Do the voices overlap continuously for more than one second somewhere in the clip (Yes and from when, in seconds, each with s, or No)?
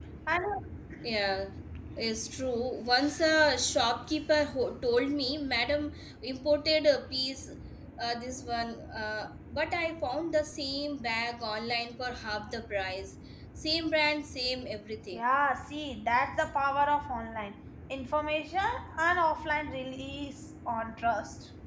No